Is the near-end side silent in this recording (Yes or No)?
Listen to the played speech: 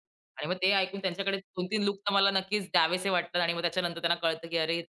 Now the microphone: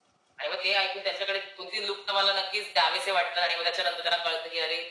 Yes